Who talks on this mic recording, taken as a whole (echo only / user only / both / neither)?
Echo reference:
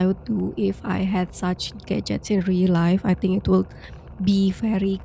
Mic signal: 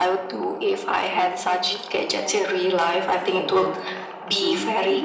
both